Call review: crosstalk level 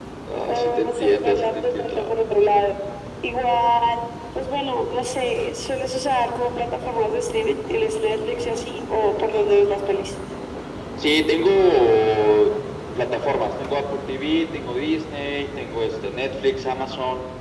present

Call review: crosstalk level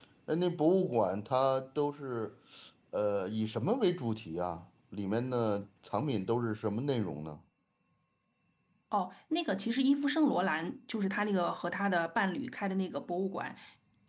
none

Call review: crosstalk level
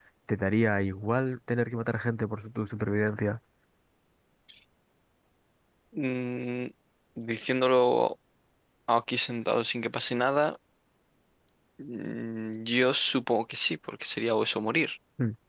none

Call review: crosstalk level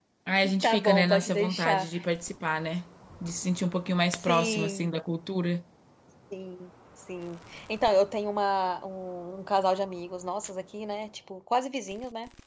present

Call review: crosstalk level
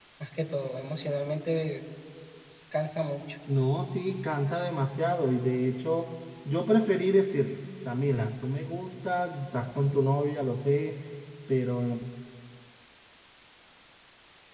none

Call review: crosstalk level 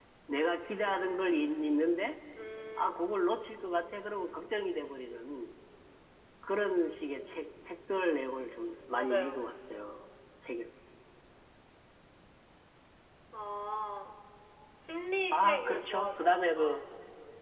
present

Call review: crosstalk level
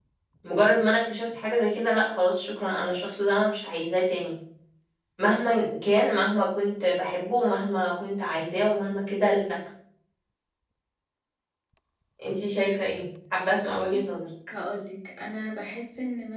none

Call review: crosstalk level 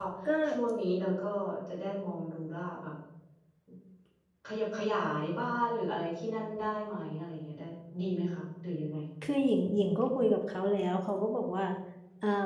none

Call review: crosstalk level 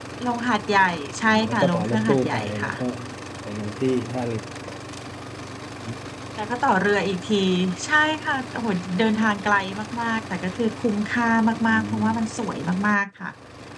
present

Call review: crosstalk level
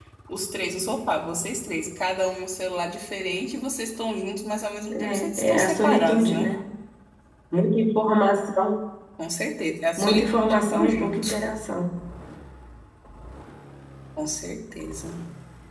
present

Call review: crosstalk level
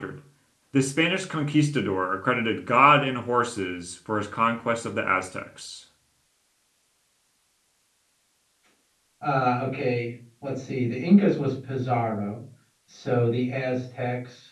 none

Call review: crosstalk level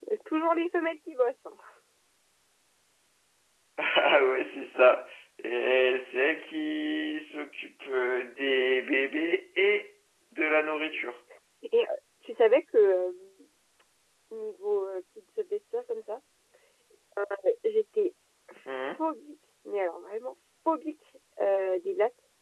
none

